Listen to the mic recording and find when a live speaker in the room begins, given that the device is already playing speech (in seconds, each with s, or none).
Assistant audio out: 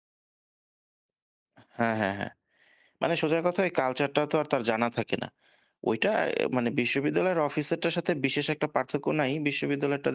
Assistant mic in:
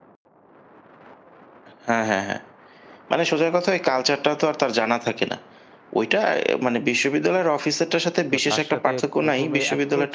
8.3 s